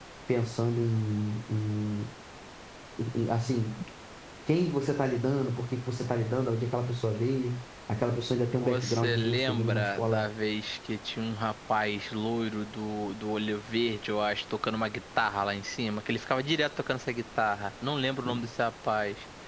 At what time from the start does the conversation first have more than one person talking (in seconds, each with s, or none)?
8.4 s